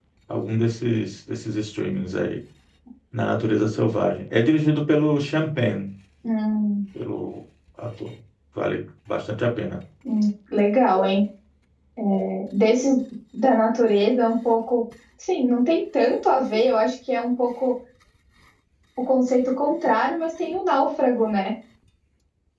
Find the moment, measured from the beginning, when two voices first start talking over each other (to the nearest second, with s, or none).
none